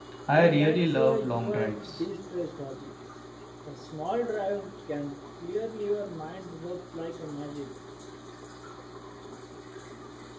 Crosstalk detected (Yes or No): Yes